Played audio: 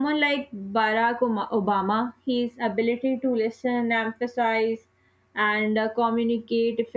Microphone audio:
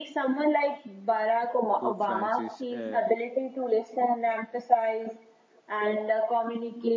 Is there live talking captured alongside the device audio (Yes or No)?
Yes